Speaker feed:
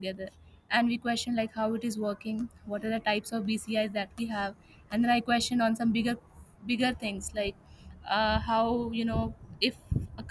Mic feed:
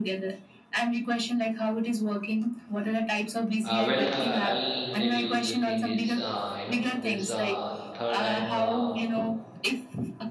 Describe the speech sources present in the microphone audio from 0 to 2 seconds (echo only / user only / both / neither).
echo only